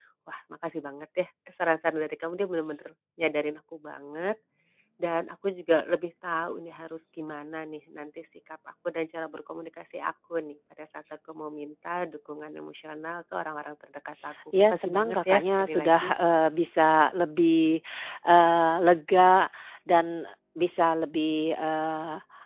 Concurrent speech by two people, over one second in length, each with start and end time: 14.5-16.1

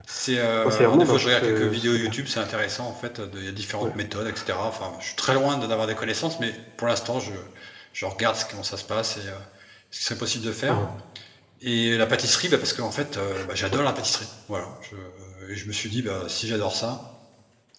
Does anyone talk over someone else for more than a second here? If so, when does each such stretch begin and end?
0.7-2.1

